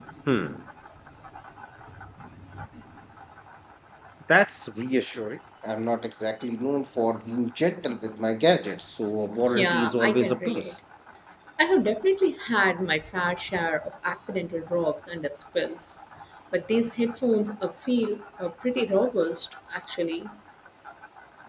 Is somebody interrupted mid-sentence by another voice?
Yes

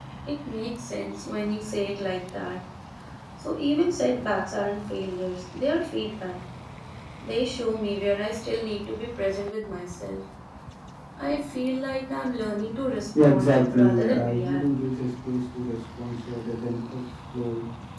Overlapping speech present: Yes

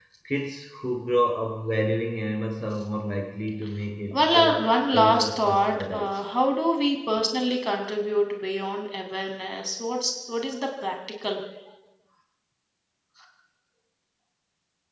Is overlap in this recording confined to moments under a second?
No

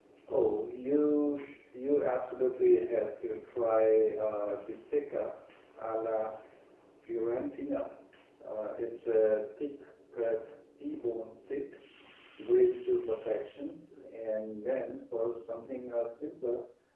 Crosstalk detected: No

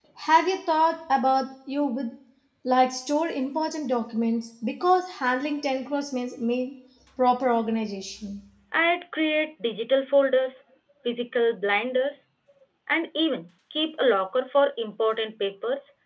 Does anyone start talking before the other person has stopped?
No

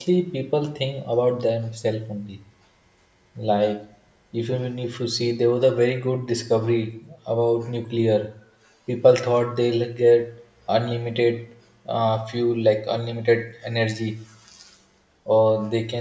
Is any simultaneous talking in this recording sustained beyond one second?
No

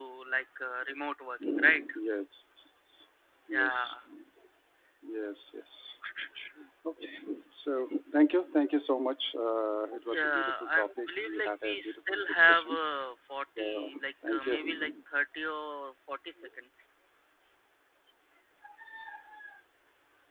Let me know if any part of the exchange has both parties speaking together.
Yes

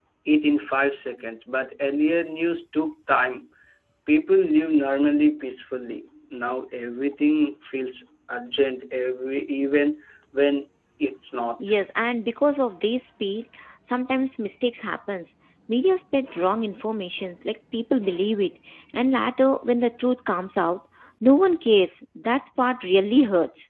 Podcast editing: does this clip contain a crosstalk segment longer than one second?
No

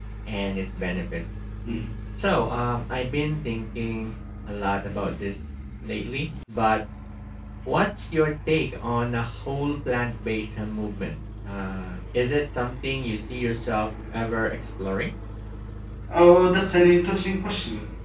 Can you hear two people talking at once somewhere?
No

